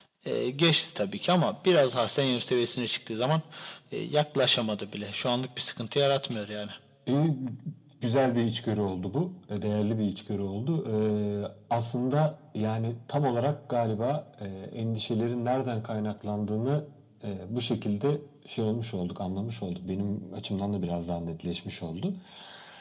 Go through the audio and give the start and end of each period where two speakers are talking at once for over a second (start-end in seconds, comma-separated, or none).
none